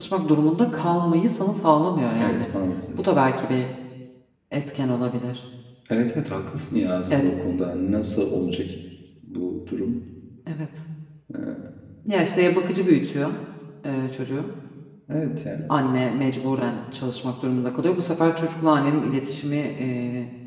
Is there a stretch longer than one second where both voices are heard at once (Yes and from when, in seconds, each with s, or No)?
No